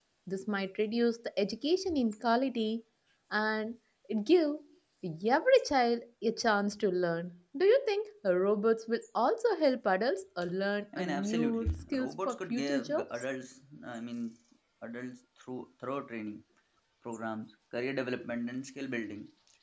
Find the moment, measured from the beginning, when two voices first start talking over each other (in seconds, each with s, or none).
10.9 s